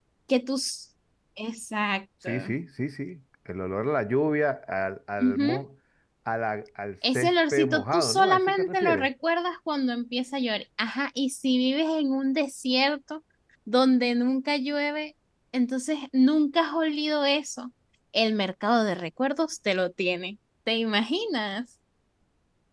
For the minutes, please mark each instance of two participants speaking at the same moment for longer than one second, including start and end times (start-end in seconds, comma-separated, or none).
7.1-9.1